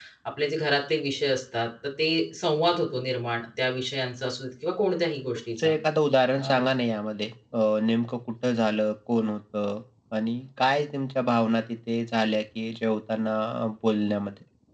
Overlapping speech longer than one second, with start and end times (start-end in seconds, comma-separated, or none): none